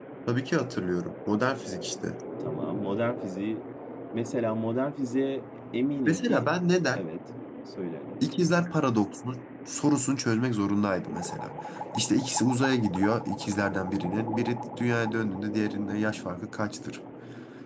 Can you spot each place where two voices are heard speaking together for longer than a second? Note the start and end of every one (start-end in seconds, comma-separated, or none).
none